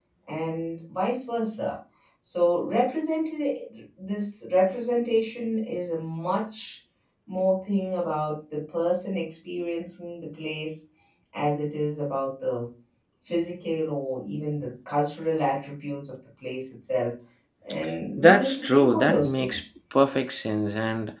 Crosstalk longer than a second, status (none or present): present